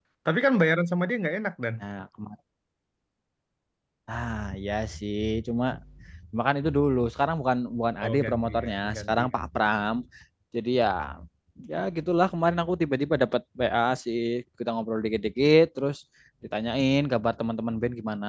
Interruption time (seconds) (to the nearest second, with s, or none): 8 s